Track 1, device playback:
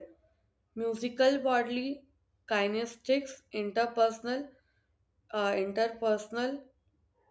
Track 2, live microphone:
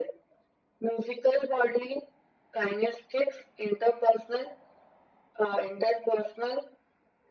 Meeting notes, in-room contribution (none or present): none